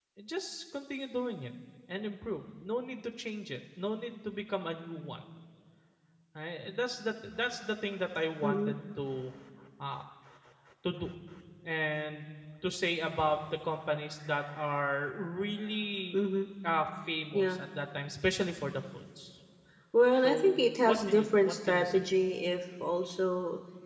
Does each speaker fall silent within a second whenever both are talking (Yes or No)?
No